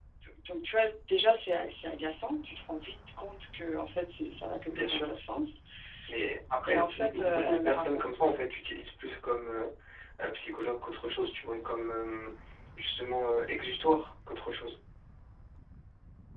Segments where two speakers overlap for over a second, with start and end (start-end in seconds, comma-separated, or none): 6.6-8.0